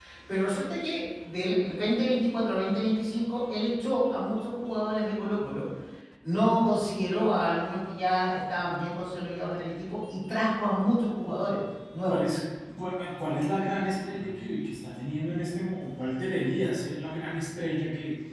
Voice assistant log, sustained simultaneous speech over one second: none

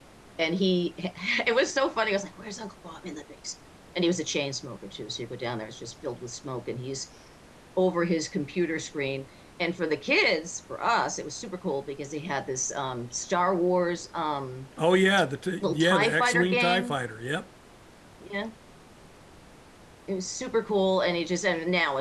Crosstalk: present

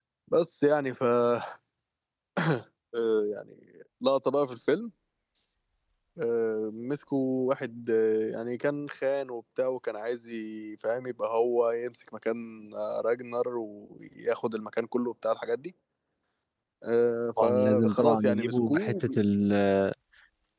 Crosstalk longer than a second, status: present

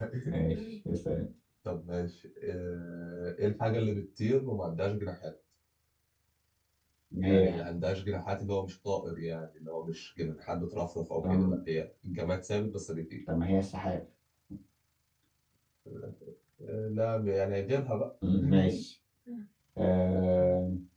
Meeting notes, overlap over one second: none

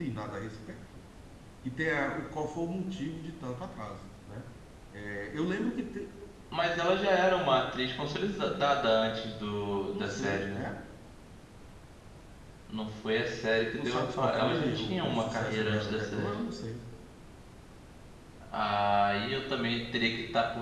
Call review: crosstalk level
present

